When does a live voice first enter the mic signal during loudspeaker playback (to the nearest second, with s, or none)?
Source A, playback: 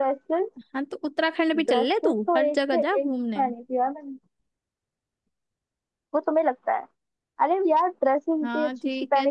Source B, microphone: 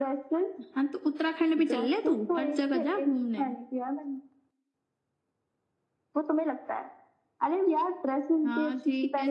none